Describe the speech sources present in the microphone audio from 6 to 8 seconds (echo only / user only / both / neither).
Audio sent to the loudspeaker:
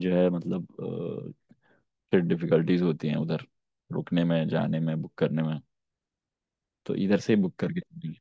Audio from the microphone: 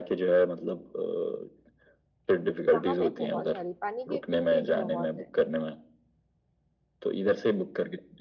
echo only